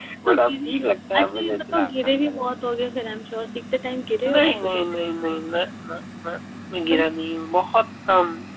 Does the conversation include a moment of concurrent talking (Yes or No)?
Yes